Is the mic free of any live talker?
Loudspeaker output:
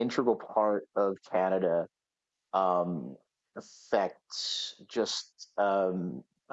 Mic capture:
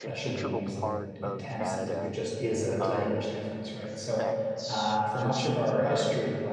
No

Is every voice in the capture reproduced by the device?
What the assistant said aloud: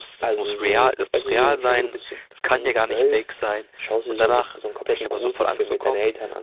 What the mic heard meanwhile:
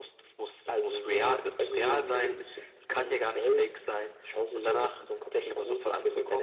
Yes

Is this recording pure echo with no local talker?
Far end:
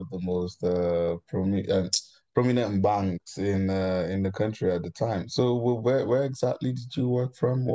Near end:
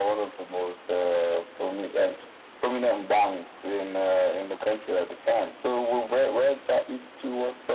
Yes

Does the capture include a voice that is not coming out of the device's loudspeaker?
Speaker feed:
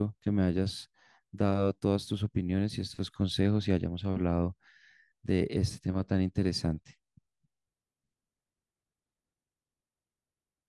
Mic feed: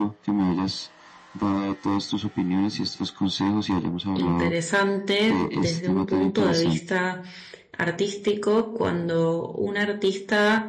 Yes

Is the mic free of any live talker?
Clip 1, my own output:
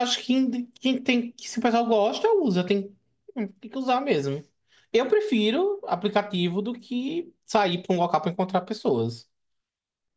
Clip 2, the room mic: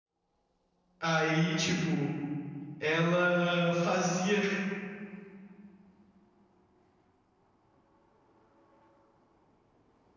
No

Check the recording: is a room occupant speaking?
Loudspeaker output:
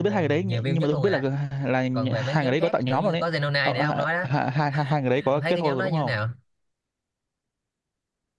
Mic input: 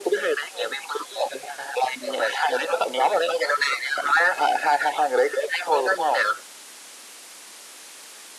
No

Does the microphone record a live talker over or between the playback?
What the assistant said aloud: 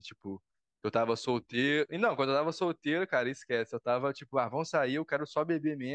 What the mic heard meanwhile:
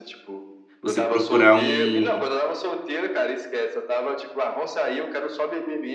Yes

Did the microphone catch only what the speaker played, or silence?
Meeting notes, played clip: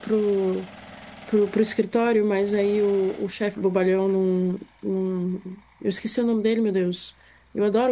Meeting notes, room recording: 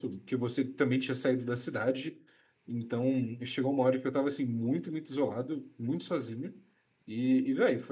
No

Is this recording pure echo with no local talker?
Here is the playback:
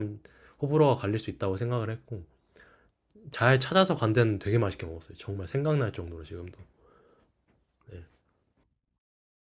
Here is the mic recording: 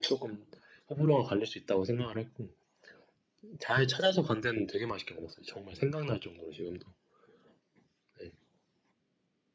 Yes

